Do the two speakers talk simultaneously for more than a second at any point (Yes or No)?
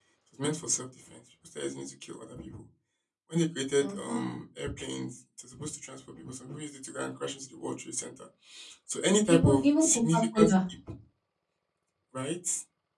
Yes